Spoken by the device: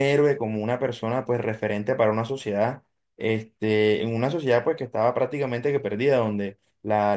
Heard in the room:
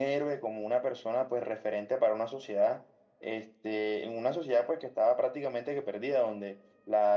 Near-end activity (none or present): none